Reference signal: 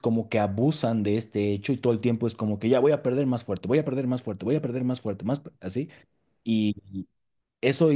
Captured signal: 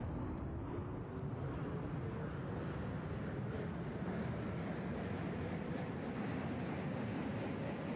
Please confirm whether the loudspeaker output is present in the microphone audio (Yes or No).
No